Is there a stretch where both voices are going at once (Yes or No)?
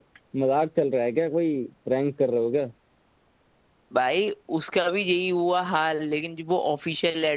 No